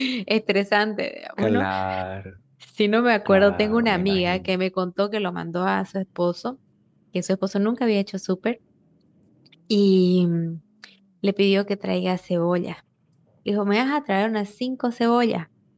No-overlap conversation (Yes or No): No